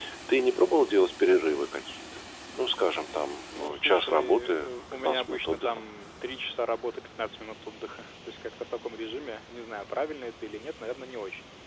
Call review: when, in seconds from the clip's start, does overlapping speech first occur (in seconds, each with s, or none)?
3.5 s